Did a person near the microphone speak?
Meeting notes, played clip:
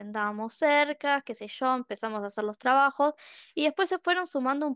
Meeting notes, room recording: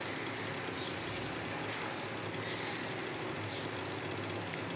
No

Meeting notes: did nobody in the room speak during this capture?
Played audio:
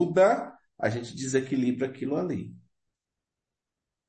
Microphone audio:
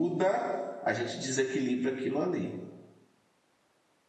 Yes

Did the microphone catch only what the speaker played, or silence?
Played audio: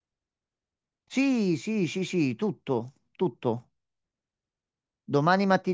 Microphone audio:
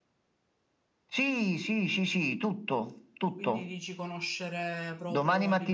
No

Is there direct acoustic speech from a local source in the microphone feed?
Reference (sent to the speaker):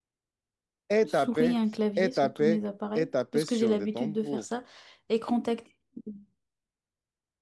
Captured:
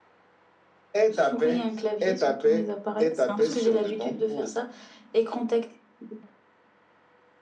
Yes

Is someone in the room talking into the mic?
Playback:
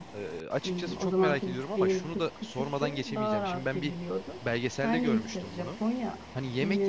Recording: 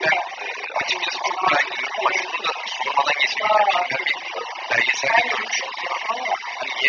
No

